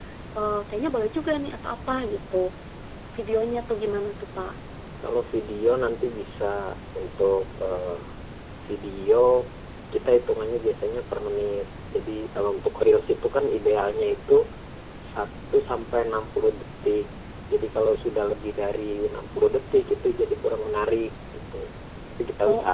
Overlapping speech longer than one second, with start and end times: none

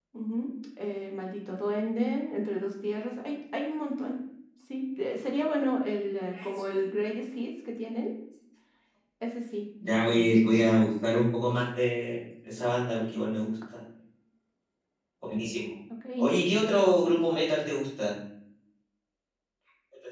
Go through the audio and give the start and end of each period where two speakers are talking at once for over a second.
none

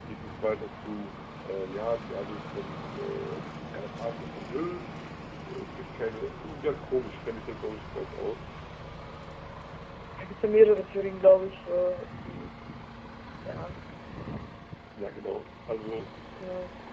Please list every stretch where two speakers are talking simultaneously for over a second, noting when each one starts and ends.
none

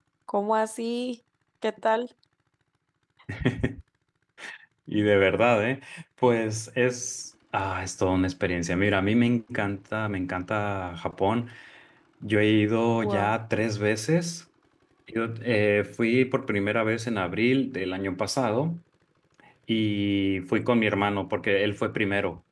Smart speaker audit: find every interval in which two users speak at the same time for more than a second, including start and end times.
none

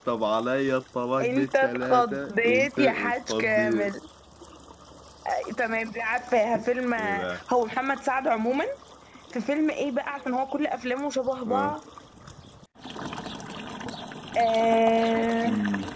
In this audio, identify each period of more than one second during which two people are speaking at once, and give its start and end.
1.2-3.9

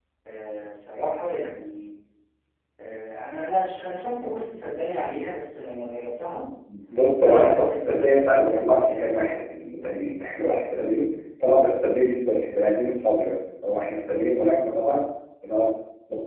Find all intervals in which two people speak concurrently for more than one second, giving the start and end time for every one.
7.2-9.4

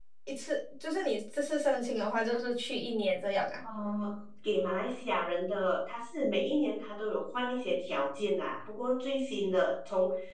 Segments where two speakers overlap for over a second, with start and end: none

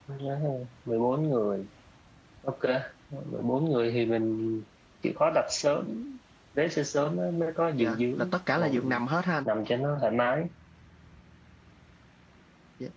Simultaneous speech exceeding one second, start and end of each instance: 7.8-9.0

